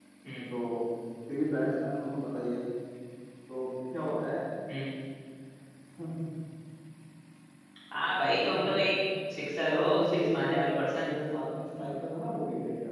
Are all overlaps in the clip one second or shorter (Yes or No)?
No